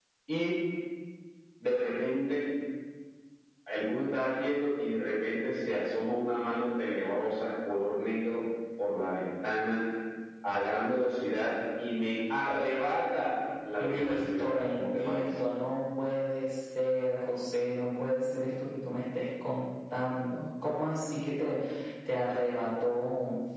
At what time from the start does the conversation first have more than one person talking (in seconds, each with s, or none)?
13.8 s